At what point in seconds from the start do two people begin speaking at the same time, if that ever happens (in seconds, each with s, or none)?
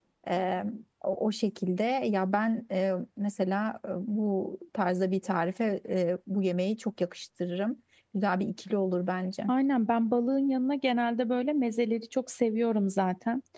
none